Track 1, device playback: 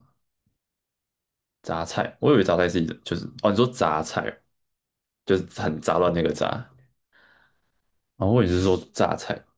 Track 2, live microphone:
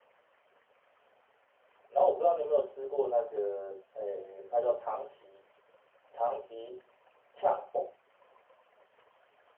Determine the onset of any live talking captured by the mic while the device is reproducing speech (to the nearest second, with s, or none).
2 s